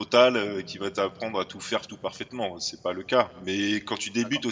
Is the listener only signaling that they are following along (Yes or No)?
Yes